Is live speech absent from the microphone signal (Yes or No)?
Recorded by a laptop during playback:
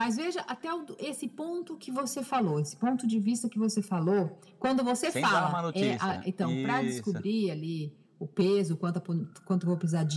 No